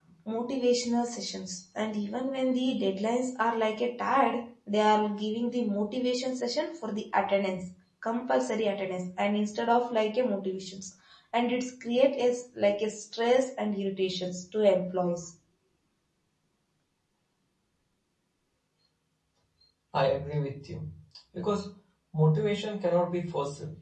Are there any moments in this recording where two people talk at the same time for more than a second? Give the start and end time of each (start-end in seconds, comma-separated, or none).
none